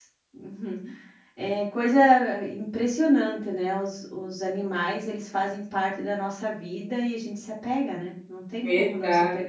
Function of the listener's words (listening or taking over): taking over